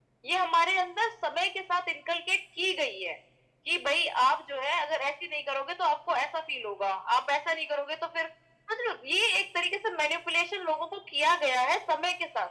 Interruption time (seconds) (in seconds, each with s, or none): none